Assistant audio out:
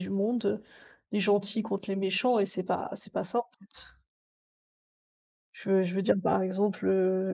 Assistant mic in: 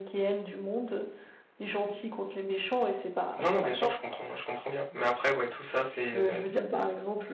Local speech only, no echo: Non, non, bien sûr, je comprends, je comprends bien. Mais après, ouais, tout ça, c'est, heu,

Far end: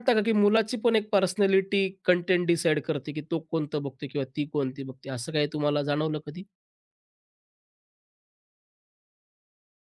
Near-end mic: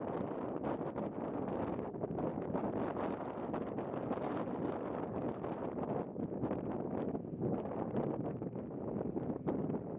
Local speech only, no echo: none

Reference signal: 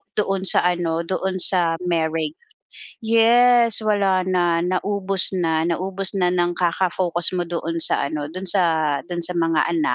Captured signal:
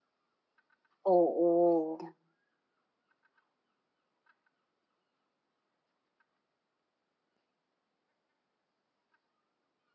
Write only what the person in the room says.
Oo,

